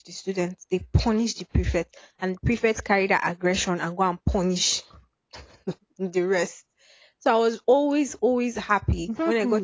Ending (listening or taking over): taking over